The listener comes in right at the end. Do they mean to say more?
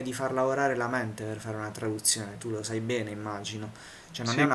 No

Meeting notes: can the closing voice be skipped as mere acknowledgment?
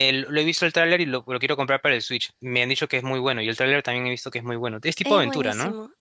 No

